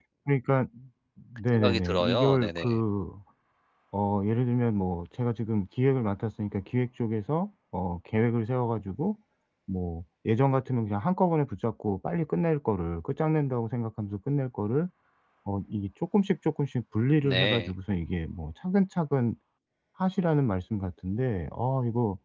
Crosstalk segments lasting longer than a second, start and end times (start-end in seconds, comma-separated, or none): 1.5-2.8